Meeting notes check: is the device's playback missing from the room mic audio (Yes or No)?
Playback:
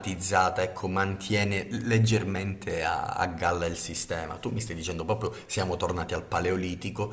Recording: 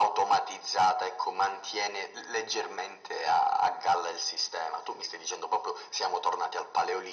No